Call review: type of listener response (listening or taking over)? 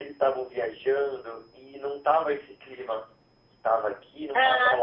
taking over